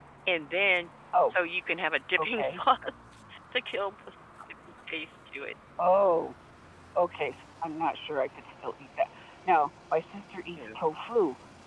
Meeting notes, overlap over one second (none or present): none